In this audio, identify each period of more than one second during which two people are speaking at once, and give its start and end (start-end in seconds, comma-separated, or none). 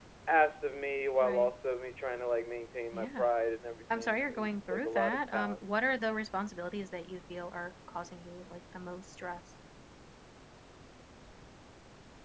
3.9-5.6